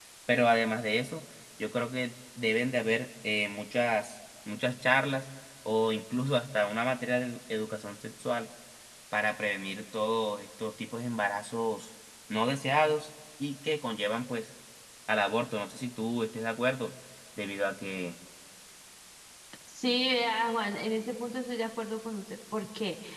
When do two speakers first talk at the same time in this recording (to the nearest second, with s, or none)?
none